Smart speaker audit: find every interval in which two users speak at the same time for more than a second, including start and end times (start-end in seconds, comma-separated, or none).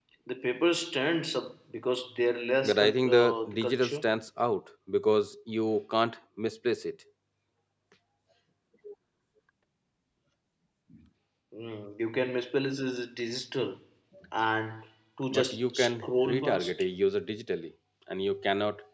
2.6-4.0, 15.3-16.8